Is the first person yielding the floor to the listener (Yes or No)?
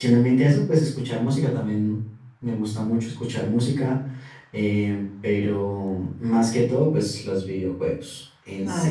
Yes